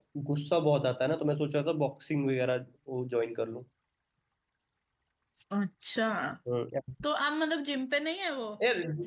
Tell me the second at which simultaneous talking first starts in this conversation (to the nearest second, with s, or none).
none